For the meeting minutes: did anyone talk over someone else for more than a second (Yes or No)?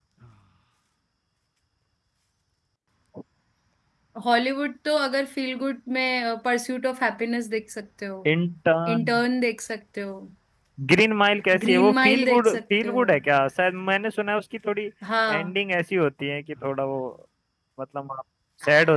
Yes